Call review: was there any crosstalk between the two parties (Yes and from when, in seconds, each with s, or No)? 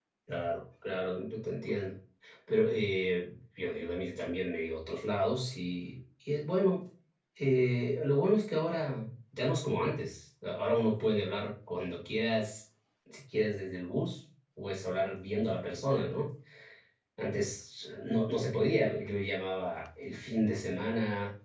No